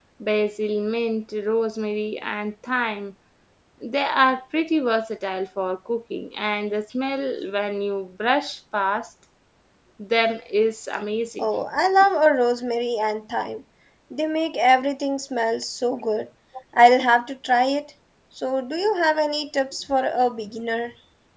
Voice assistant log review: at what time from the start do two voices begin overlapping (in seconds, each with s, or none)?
none